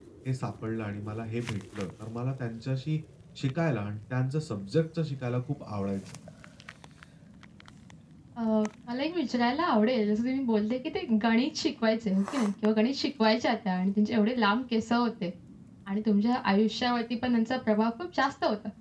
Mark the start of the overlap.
none

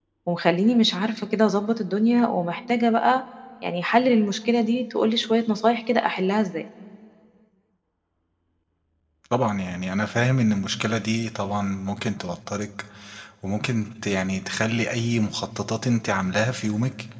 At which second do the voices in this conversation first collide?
none

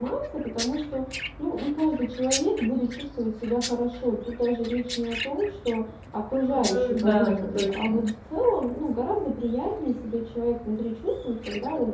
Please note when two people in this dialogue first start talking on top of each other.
6.5 s

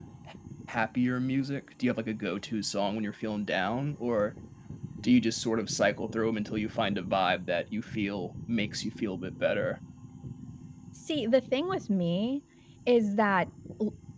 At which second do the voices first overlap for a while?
none

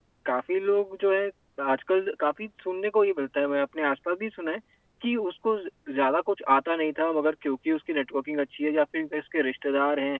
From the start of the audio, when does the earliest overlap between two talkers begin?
none

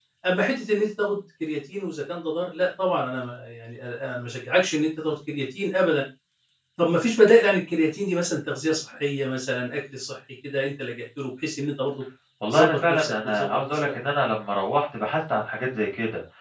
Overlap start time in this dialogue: 12.5 s

